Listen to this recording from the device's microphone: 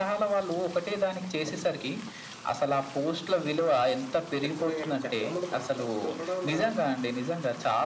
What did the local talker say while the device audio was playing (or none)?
ఖచ్చితంగాను. చాలామంది మా ఫ్రెండ్స్‌లో కూడా మా